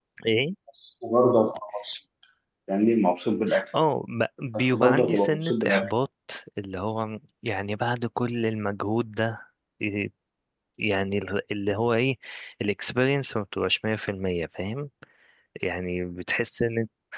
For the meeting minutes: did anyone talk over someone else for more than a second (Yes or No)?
Yes